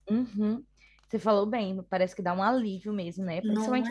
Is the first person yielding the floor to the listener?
No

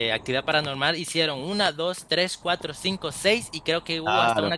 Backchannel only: No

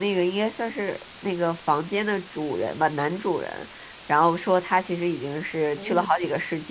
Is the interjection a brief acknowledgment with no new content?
Yes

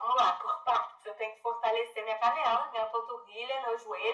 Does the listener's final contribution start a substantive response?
No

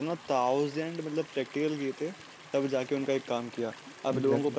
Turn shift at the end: No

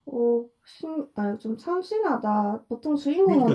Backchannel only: No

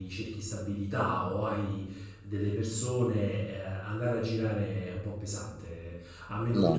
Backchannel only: Yes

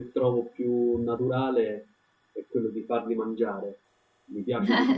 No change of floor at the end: No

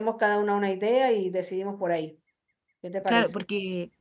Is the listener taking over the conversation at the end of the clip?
Yes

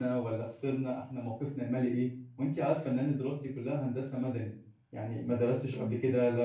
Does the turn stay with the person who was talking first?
Yes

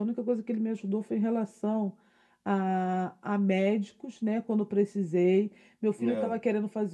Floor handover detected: No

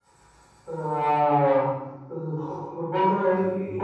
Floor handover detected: No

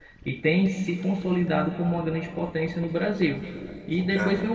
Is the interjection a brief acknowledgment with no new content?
Yes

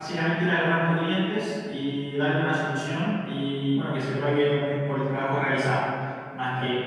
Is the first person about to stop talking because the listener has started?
Yes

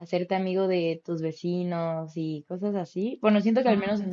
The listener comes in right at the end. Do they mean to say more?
No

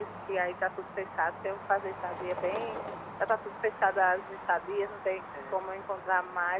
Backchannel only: Yes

